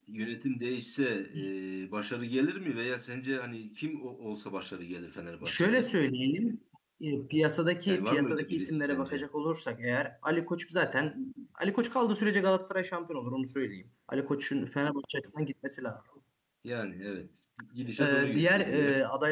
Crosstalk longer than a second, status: present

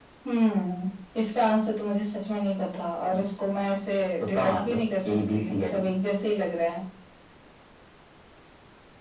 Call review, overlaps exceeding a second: present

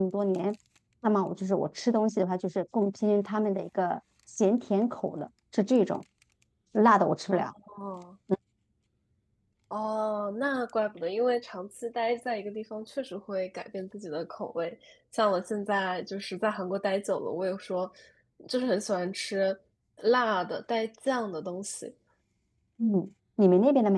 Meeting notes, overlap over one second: none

